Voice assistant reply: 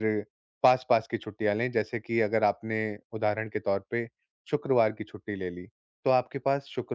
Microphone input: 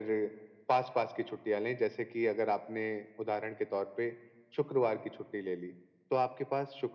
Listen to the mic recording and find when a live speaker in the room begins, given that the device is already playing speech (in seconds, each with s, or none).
none